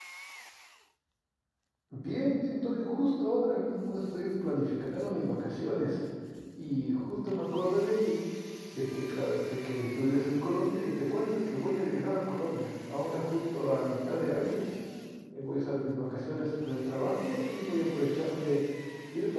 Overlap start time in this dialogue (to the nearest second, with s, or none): none